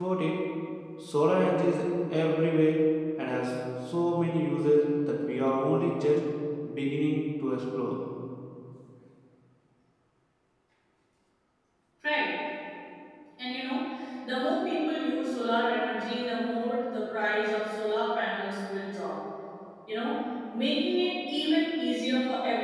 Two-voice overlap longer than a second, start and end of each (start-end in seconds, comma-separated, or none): none